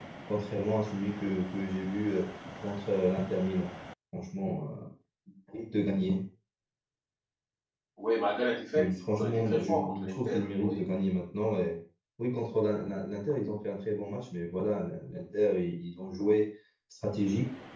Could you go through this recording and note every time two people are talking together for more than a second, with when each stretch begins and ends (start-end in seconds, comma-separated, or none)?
8.8-10.8